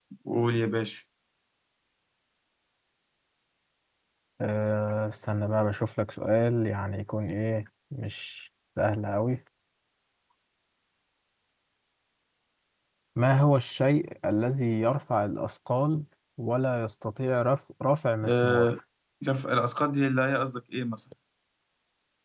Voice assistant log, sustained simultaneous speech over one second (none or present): none